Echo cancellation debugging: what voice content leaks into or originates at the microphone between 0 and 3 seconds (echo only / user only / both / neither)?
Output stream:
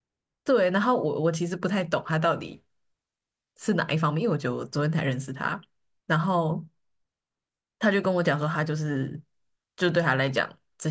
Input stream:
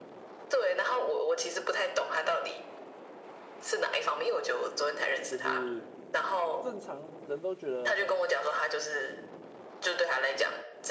echo only